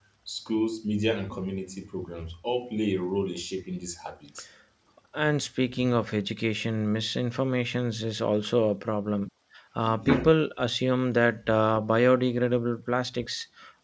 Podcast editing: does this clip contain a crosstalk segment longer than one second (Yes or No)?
No